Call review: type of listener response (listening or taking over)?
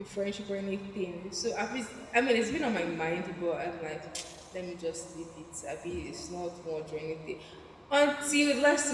listening